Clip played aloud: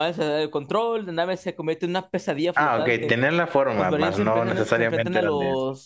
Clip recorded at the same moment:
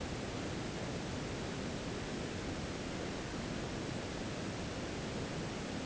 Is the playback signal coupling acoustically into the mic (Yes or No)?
No